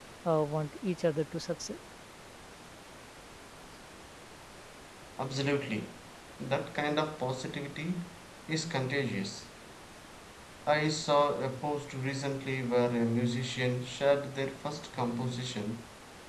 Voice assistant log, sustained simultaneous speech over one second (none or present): none